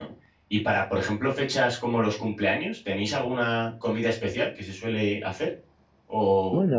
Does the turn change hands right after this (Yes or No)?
No